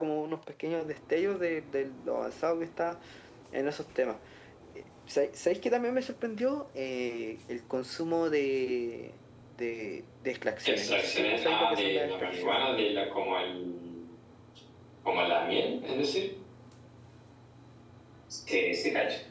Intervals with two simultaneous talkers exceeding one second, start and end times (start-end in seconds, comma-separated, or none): 10.6-12.6